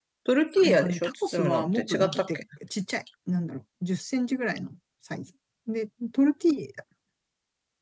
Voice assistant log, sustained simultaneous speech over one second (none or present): present